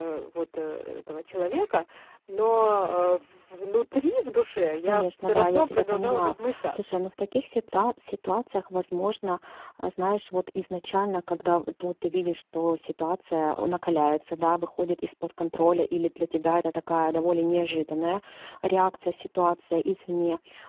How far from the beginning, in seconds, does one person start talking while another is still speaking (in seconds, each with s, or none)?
4.9 s